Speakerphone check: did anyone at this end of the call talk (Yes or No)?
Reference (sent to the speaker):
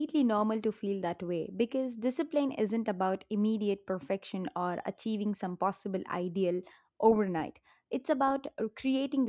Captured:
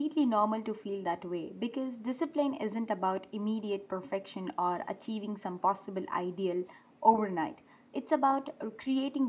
No